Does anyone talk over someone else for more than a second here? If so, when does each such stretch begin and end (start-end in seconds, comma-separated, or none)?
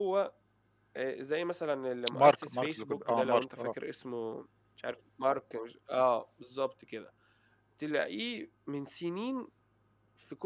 2.2-3.4